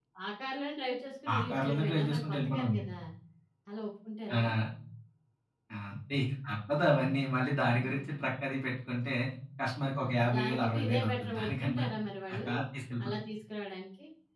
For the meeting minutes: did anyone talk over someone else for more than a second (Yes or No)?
Yes